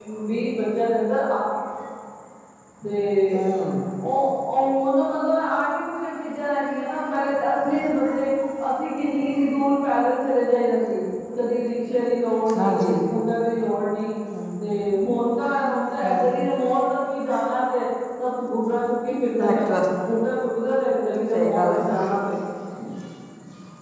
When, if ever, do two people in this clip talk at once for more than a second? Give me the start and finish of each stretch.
none

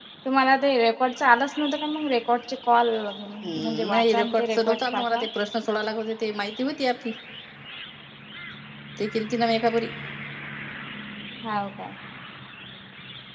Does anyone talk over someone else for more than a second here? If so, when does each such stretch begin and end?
3.4-5.2

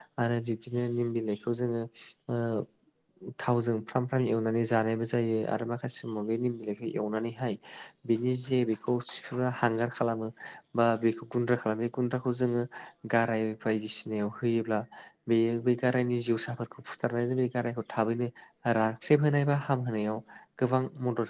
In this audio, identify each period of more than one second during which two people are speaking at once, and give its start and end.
none

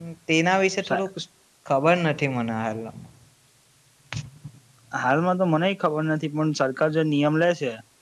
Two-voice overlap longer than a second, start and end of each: none

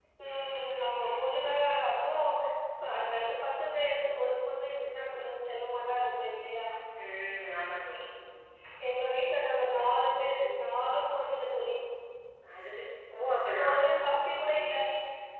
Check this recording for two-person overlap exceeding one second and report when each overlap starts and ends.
none

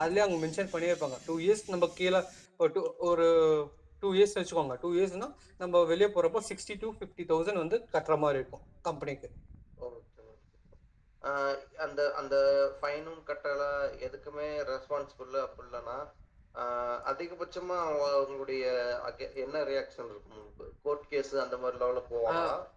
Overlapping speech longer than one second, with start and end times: none

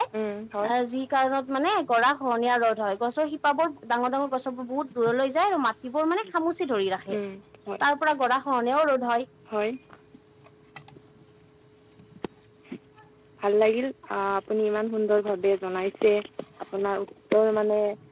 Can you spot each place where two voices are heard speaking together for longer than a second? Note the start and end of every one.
none

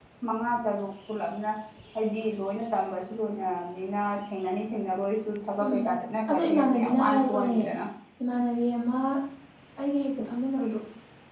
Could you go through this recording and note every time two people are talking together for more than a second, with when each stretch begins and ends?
6.3-7.6

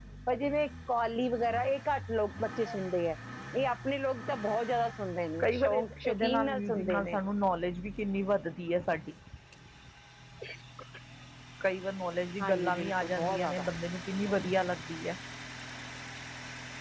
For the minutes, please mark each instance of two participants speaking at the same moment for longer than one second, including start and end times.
5.4-7.2, 12.4-13.6

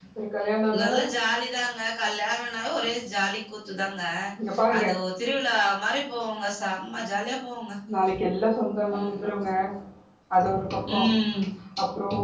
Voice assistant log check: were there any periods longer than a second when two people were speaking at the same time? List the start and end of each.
none

